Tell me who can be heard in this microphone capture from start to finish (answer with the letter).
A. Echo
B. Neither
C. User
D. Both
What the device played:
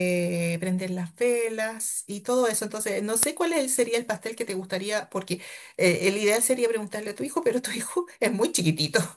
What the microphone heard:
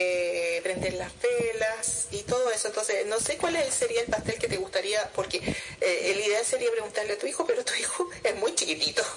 A